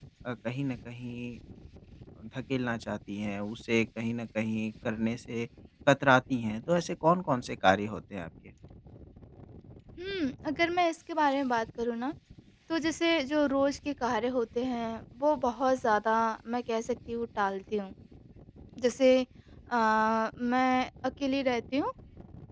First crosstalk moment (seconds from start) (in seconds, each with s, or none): none